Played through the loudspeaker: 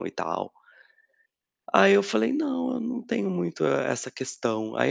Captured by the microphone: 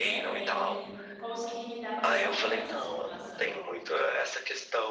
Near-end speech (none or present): present